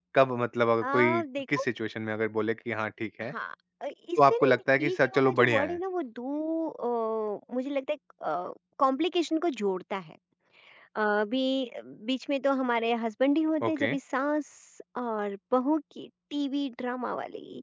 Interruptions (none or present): present